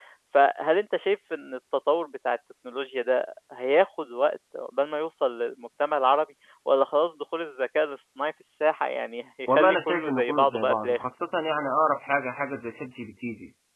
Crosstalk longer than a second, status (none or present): present